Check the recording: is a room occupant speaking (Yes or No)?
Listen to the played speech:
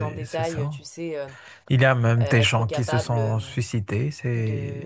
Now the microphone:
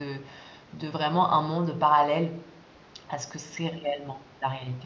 Yes